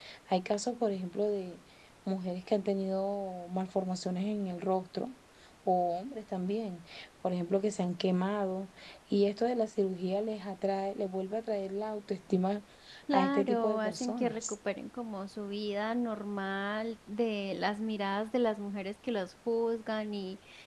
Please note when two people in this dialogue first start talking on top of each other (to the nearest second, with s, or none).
13 s